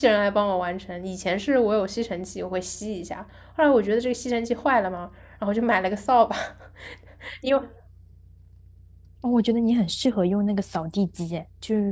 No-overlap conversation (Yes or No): Yes